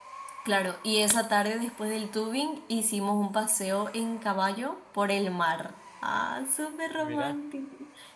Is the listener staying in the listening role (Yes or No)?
Yes